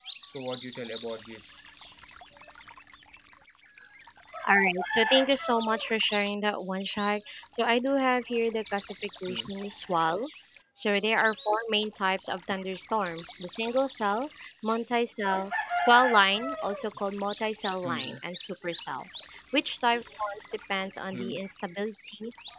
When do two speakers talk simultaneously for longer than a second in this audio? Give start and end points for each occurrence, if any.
none

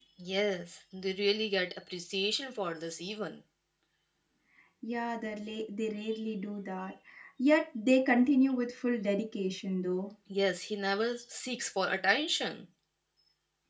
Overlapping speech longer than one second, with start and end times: none

